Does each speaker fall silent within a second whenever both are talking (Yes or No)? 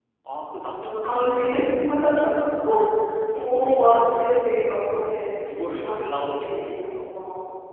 No